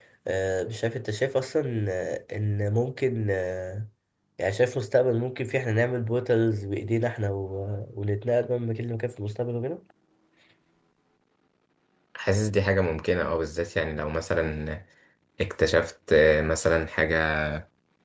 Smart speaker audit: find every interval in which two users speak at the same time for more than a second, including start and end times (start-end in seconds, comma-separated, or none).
none